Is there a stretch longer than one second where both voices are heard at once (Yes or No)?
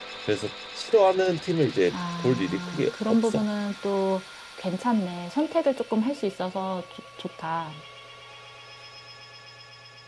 Yes